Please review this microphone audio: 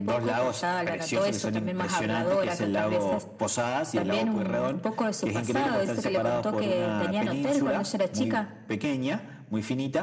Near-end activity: none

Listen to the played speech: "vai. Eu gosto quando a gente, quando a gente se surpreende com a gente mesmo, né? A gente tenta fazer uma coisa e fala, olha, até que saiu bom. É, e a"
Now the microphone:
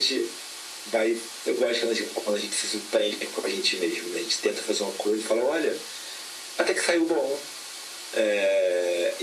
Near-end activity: none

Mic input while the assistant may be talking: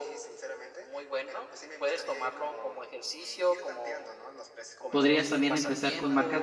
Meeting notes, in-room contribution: present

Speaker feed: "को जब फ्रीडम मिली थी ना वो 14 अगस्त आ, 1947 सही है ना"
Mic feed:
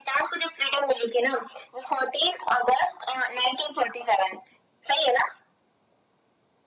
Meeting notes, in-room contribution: none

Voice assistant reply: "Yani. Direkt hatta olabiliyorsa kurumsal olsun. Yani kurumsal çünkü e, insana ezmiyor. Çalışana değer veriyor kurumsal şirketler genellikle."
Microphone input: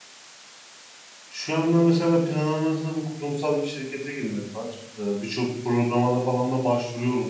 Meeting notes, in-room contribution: present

